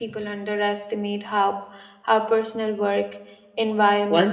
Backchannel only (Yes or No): No